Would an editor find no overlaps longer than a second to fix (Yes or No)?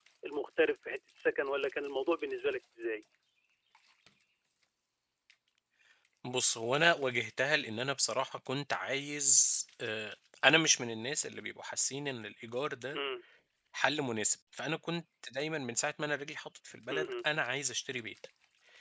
Yes